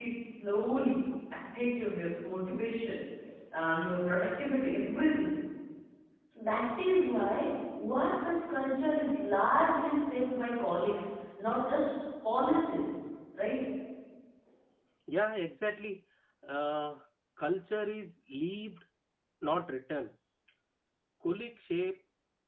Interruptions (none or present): none